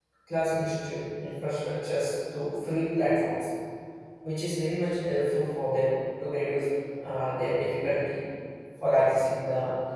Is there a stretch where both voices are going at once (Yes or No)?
No